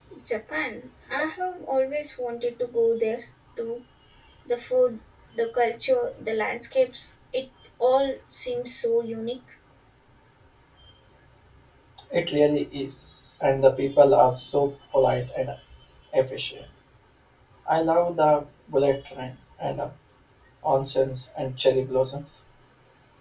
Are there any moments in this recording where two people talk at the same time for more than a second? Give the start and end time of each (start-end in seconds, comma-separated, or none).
none